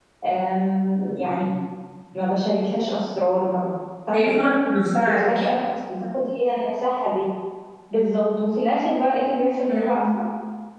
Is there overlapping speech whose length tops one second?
No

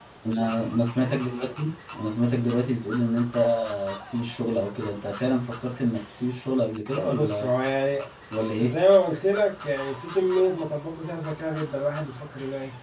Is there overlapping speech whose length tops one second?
No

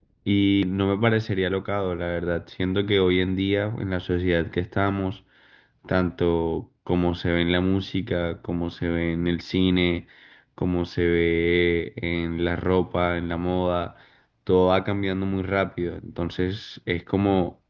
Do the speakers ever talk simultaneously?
No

